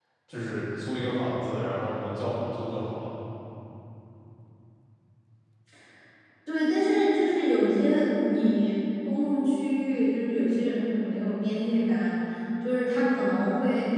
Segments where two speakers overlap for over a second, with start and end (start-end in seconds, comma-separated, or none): none